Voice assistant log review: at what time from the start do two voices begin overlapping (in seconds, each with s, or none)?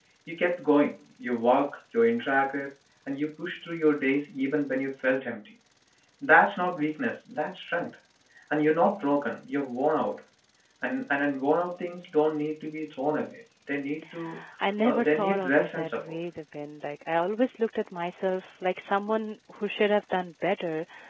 14.8 s